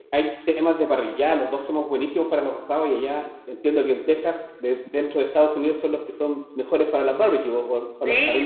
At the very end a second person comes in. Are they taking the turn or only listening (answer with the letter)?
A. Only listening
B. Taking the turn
B